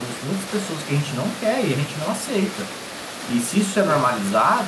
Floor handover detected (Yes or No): No